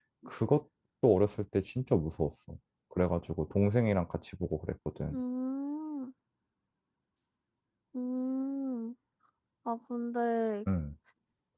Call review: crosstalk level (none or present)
none